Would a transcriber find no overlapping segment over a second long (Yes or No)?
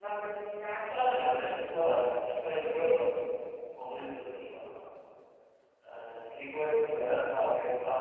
Yes